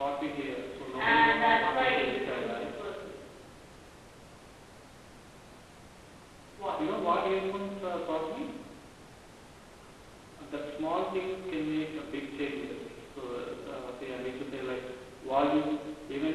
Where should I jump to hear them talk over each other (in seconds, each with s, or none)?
1.0 s